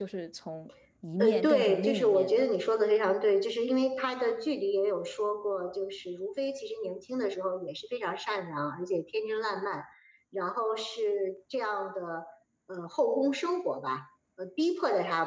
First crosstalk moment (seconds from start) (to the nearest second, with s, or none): 1 s